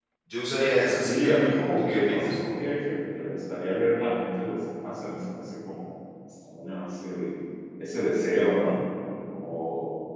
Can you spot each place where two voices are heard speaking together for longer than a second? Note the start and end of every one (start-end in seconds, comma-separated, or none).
1.1-2.4